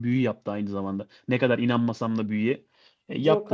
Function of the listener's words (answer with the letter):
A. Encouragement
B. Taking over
A